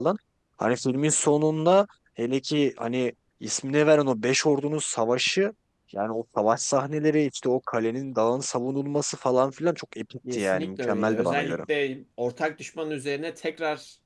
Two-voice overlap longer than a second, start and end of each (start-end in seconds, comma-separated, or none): 10.3-11.6